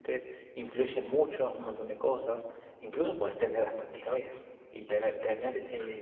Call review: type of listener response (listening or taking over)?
listening